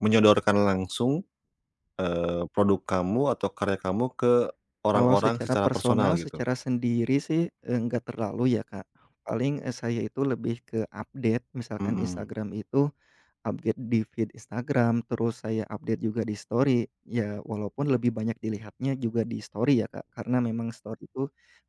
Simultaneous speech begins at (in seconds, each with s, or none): 4.9 s